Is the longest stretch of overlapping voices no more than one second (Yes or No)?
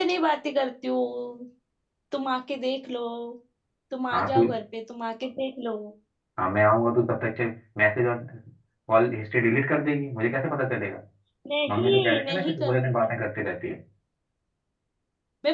No